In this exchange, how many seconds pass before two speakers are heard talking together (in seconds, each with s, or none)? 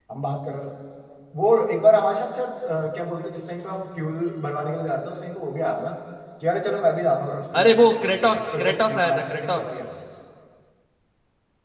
7.5 s